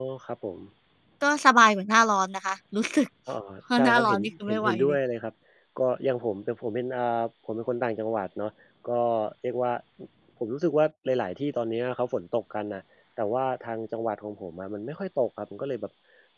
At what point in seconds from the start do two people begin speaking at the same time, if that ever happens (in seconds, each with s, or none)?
3.8 s